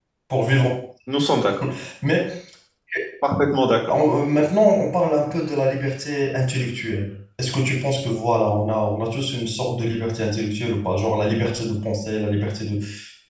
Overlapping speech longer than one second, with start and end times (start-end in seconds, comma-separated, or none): none